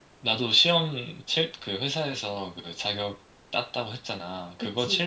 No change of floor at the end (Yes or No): Yes